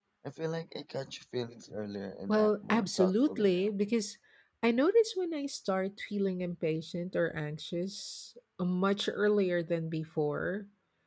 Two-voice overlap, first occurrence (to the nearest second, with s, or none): 2 s